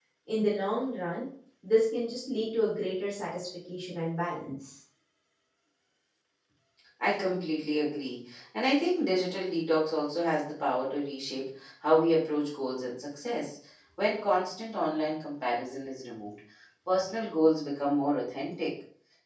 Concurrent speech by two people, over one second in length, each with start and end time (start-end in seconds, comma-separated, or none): none